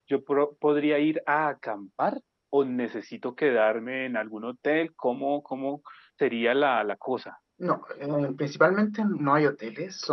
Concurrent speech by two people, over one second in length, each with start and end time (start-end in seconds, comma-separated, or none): none